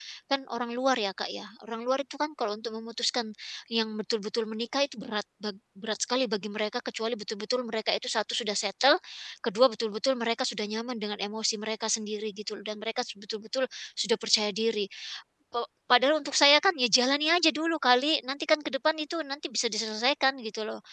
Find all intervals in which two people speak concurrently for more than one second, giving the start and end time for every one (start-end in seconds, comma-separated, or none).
none